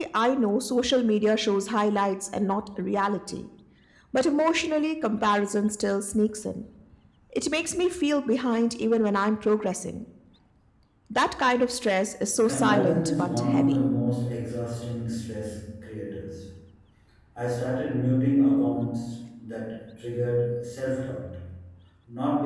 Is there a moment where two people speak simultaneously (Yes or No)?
Yes